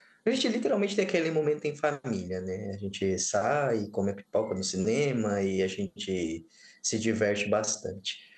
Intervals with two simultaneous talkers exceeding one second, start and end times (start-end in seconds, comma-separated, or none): none